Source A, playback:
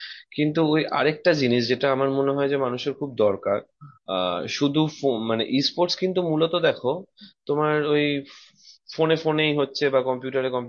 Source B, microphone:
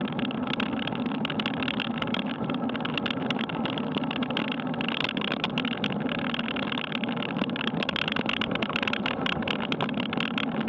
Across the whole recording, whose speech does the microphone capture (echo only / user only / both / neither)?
neither